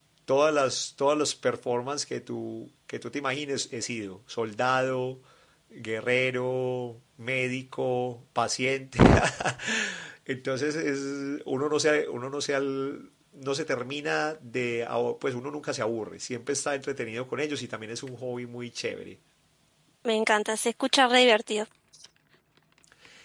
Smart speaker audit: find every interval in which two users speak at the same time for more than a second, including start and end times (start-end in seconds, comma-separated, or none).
none